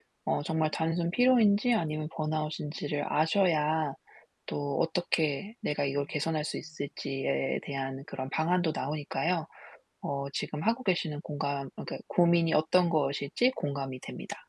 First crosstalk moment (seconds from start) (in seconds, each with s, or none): none